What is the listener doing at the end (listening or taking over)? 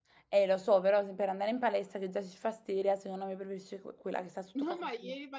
taking over